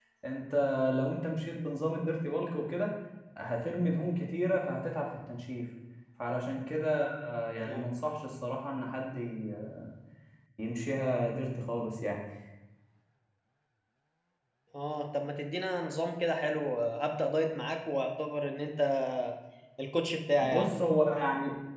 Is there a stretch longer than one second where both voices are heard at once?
No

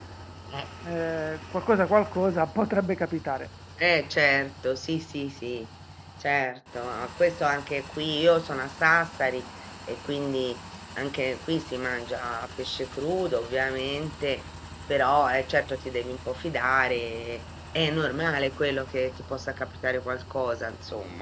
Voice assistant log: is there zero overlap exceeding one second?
Yes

